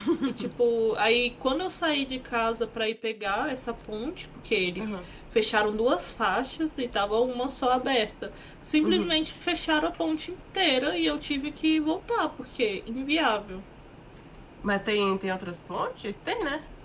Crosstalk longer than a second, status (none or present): none